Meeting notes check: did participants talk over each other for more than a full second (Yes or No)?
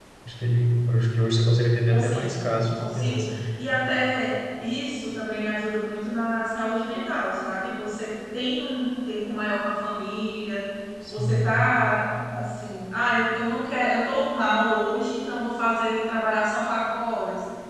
Yes